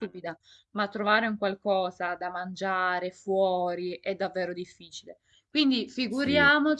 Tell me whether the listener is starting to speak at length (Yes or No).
No